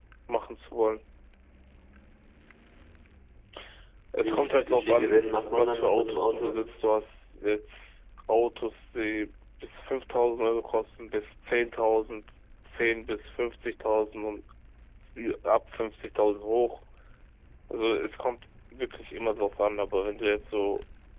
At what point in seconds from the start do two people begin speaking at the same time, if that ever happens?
4.2 s

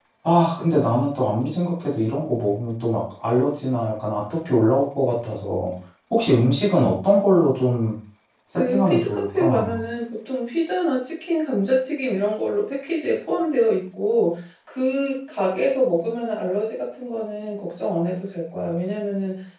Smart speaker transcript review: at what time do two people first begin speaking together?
8.6 s

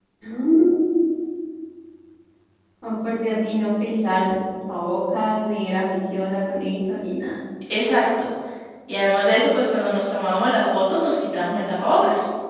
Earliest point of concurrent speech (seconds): none

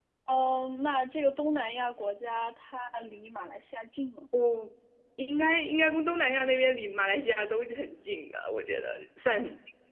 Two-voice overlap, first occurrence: none

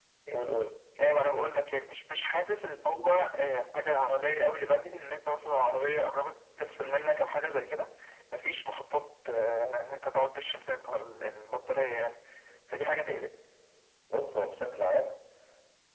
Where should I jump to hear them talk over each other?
none

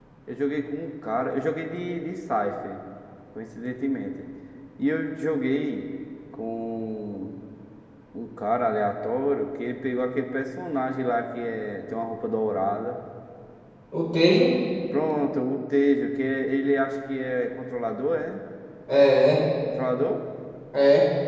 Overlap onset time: none

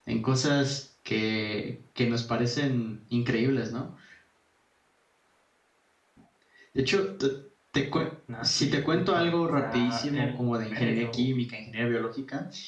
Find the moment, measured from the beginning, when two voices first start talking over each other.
8.4 s

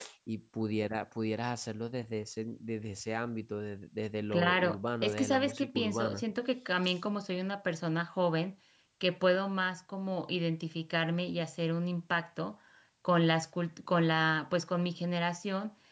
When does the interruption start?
4.3 s

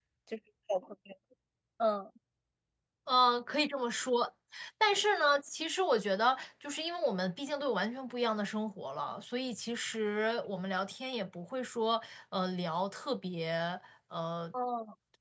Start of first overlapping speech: none

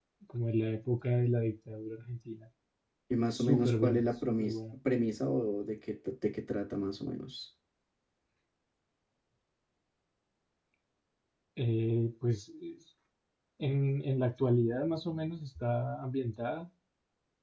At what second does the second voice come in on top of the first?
3.3 s

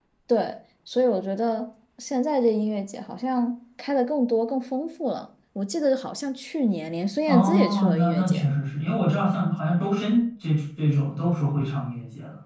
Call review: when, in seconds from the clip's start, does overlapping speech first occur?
7.3 s

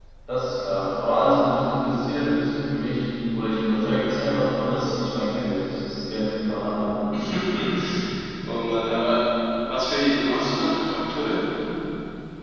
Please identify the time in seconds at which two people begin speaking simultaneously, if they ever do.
none

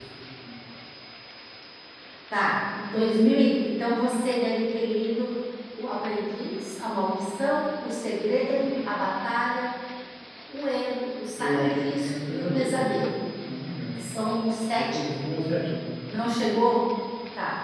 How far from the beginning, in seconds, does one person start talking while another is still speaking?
11.4 s

